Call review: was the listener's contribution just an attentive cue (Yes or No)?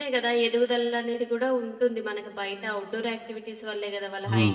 No